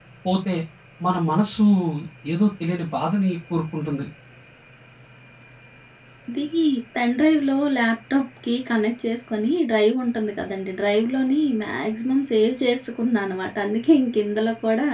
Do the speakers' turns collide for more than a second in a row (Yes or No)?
No